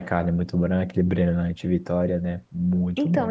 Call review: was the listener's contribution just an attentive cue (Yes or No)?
No